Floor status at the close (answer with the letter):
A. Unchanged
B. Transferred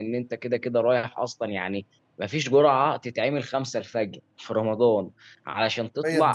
A